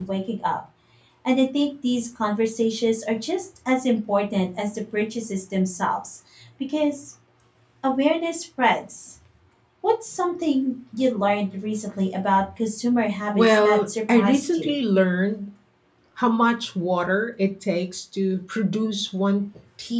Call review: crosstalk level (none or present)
present